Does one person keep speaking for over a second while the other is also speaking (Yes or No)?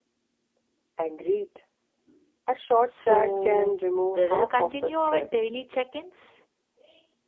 Yes